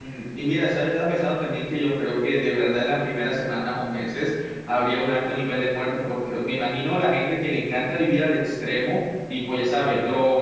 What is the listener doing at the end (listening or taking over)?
listening